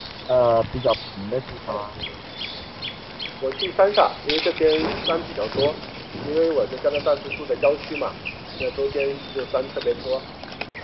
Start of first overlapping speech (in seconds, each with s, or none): none